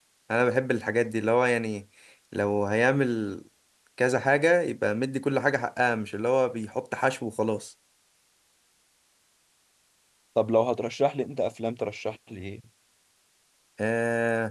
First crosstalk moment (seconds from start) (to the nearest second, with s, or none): none